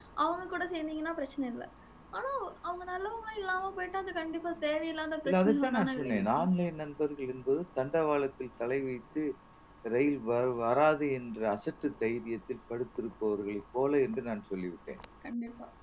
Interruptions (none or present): present